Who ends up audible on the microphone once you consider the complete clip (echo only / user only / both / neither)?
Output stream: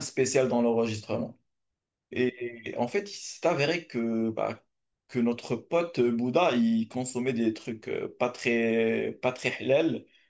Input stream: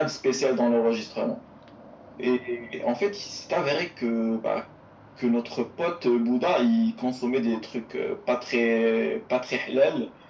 echo only